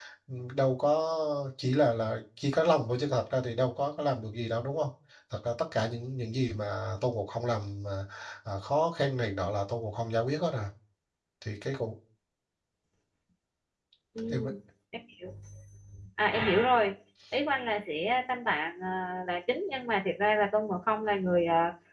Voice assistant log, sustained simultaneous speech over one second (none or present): none